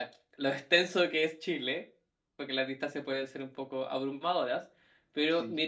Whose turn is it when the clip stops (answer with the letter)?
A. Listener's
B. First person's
B